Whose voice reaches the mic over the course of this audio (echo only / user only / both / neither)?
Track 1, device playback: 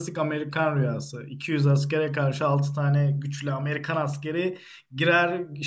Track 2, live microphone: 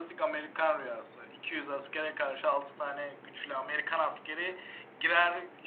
echo only